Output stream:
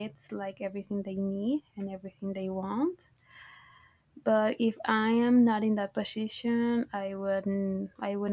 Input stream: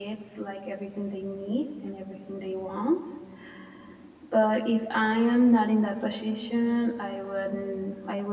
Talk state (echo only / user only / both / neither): echo only